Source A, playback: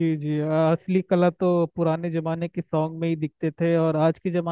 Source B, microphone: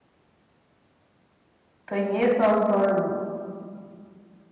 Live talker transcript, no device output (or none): तो ये सॉन्ग तो